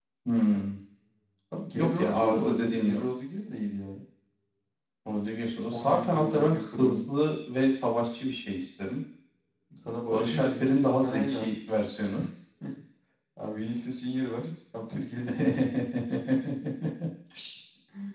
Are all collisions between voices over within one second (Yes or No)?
No